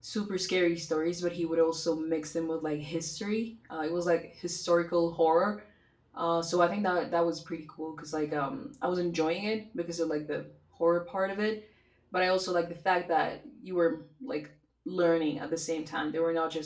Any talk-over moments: No

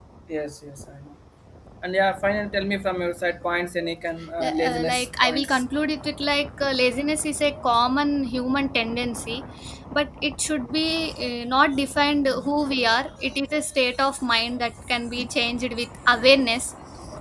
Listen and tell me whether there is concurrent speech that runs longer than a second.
Yes, from 4.4 s

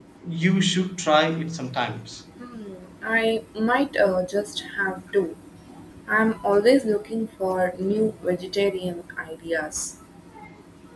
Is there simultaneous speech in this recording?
No

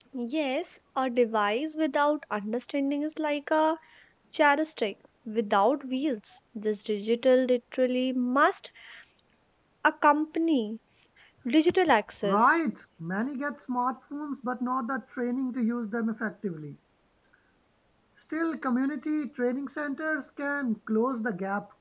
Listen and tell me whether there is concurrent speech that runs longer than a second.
No

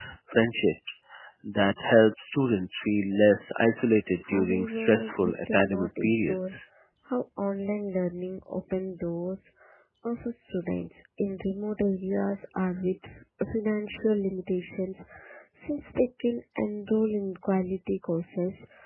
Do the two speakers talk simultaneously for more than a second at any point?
Yes, from 4.2 s

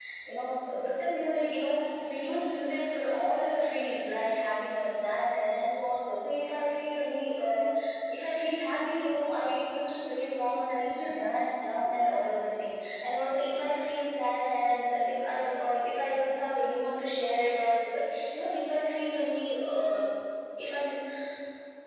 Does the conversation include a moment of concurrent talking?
No

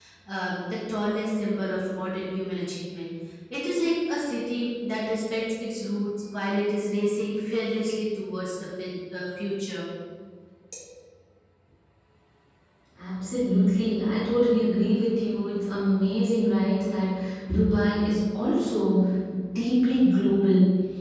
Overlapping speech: No

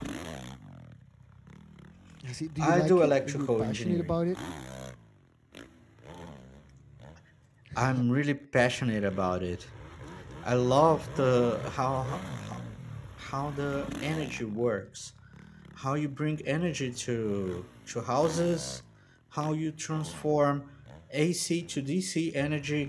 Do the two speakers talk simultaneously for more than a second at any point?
Yes, from 2.6 s

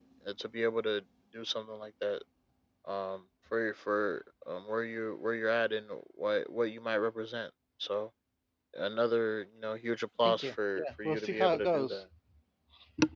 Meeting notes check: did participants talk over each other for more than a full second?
Yes, from 10.2 s

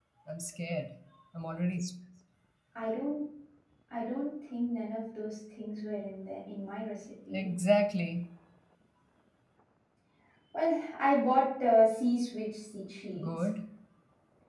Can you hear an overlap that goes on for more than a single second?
No

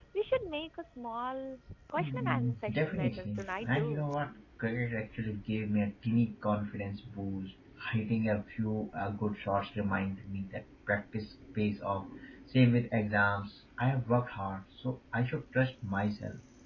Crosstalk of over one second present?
Yes, from 2.0 s

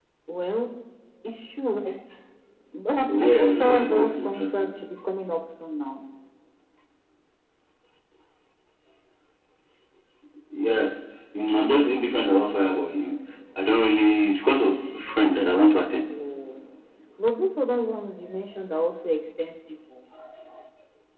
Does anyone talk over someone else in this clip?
Yes, from 3.2 s

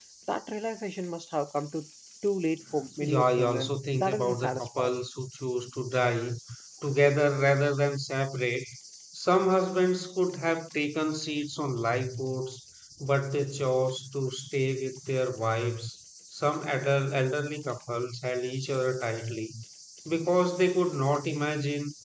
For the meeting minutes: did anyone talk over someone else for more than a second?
Yes, from 3.0 s

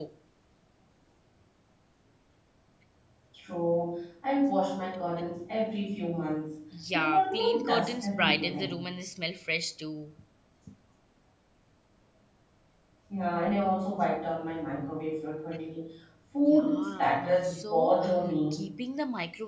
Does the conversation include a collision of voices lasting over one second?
Yes, from 6.9 s

